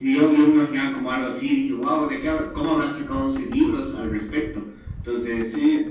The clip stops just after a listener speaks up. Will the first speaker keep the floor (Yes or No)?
No